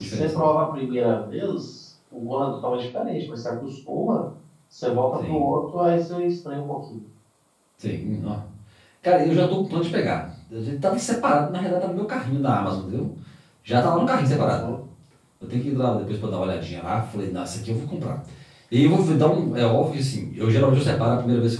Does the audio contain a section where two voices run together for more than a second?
No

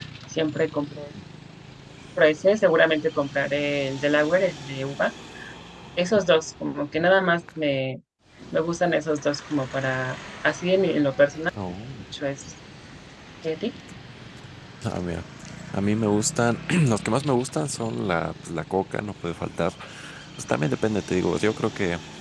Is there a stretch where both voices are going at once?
No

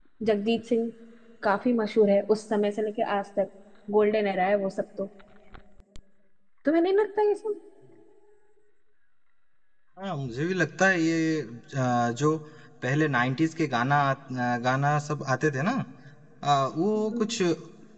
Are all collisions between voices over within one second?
Yes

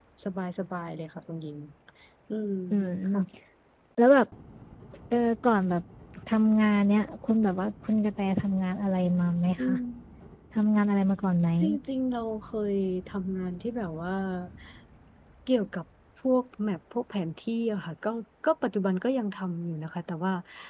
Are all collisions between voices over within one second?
Yes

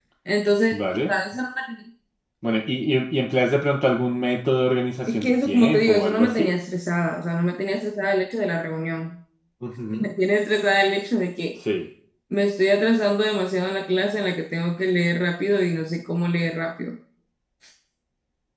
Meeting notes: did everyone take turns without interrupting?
No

